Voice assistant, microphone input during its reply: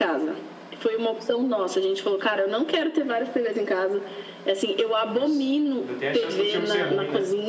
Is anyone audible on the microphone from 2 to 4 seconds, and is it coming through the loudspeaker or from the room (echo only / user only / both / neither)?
echo only